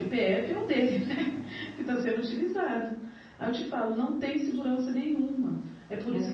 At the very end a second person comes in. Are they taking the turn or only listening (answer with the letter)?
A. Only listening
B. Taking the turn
A